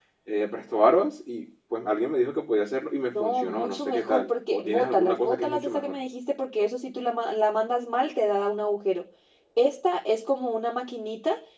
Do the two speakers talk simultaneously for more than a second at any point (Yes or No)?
Yes